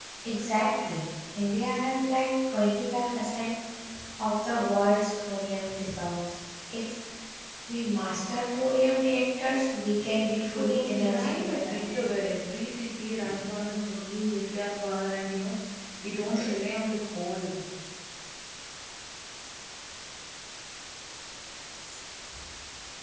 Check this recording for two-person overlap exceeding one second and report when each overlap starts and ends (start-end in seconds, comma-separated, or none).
10.6-12.1